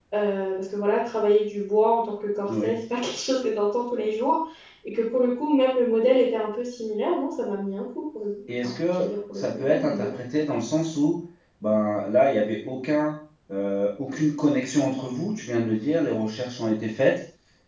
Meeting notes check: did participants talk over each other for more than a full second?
Yes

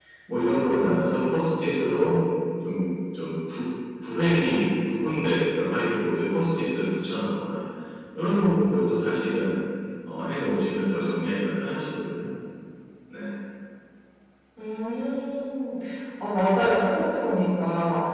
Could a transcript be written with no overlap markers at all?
Yes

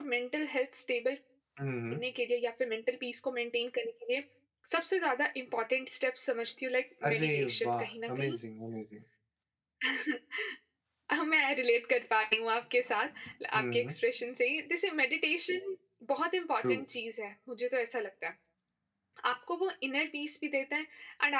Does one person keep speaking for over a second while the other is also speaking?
Yes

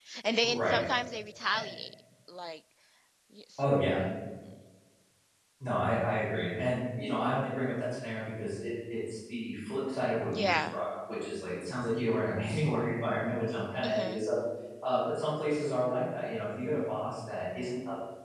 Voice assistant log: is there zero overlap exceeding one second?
Yes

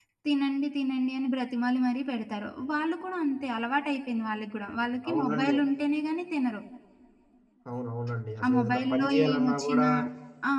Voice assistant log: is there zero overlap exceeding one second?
No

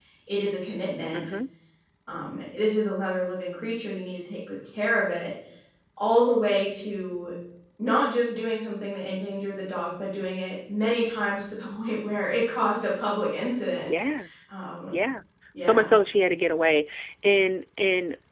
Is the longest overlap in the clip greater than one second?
No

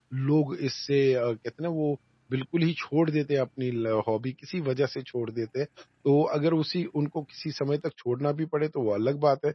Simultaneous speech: No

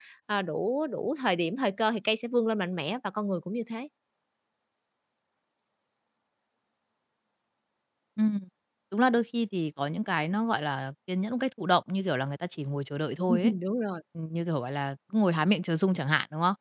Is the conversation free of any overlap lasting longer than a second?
Yes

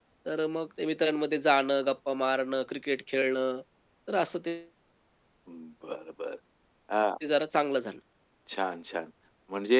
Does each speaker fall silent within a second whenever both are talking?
Yes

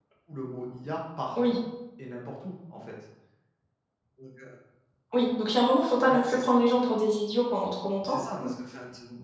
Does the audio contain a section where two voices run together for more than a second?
No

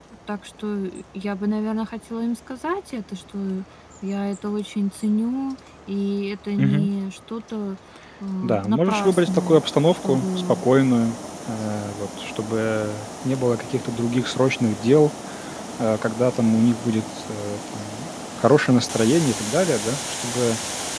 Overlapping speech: Yes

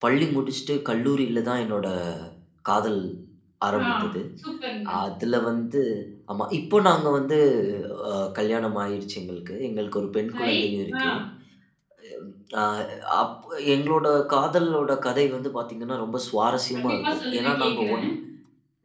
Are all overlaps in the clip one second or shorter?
No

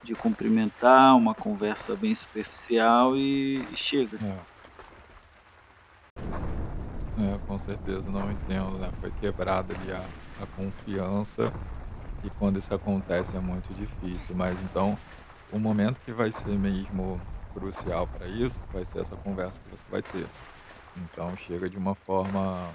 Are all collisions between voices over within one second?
Yes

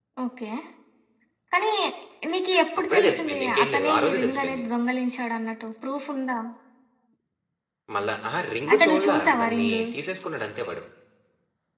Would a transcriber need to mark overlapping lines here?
Yes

